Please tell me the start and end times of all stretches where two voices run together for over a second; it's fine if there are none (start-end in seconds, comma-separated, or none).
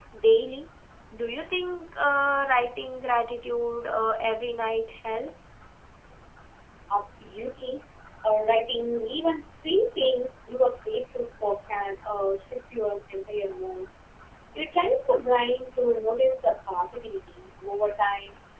none